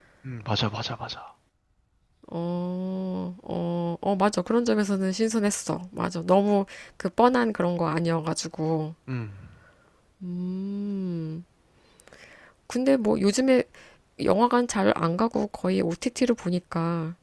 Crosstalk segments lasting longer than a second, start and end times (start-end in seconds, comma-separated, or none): none